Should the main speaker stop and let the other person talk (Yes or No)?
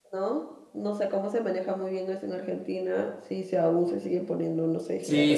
Yes